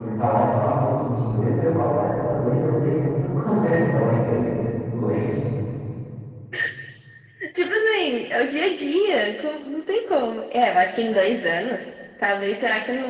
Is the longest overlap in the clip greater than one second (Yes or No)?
No